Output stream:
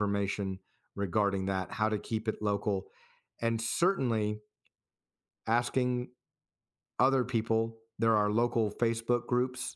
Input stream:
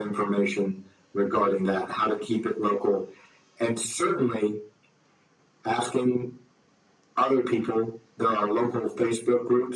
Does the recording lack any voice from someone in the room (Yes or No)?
Yes